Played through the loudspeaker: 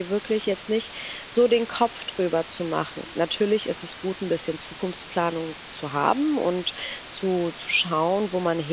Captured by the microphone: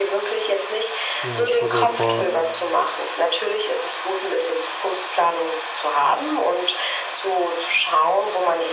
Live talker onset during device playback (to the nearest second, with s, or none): 1 s